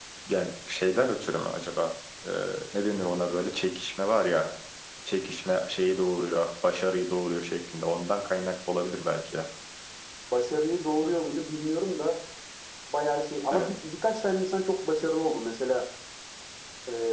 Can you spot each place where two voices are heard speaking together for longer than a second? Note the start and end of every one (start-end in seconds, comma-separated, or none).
none